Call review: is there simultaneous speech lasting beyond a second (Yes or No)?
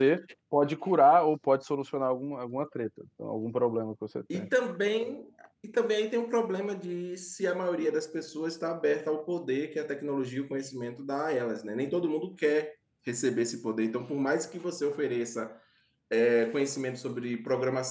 No